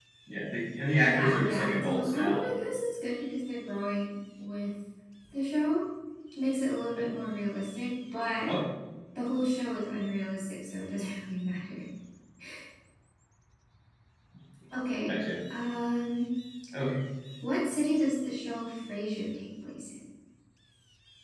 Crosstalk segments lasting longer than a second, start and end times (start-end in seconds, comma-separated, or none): 1.0-2.5